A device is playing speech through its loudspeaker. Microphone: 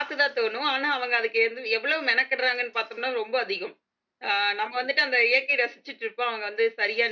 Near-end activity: none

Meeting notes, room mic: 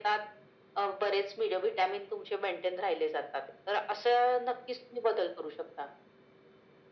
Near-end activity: none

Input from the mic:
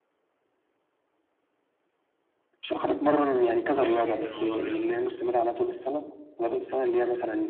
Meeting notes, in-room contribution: present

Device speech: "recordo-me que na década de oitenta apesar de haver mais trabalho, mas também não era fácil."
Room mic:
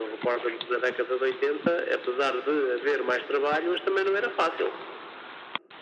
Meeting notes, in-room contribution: none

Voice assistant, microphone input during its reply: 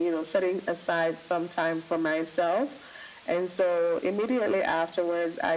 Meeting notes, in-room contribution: none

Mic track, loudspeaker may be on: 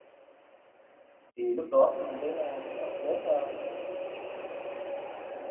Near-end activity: present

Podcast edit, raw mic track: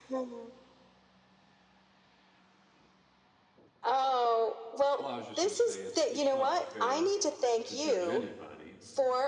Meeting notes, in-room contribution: present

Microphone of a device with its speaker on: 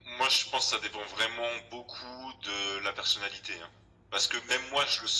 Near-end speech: none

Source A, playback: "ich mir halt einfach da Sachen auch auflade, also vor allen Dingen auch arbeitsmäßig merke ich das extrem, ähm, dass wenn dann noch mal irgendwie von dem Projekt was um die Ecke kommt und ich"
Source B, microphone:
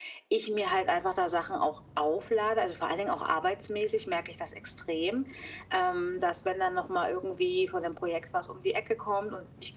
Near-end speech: none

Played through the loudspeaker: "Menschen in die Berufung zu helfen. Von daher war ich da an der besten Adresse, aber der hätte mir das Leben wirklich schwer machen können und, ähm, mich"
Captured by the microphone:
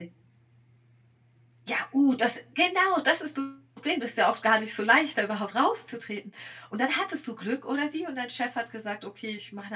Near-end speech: present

